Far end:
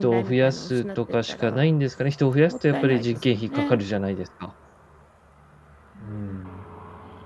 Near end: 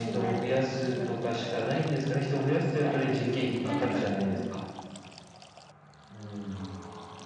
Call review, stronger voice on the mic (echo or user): echo